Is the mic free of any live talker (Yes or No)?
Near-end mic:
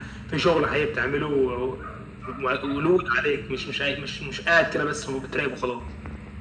Yes